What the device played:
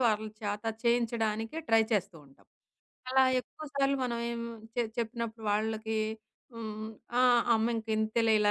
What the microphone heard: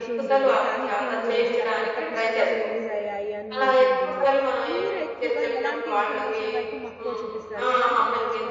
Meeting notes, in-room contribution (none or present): present